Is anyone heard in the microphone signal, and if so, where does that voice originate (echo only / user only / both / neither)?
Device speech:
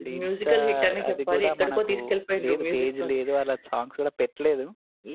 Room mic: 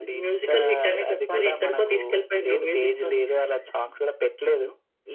echo only